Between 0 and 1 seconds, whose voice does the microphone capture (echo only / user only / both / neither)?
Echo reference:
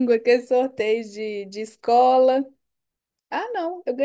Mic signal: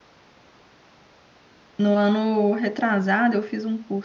neither